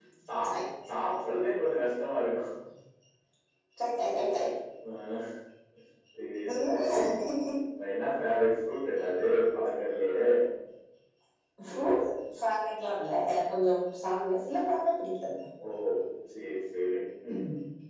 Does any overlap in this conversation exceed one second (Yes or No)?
No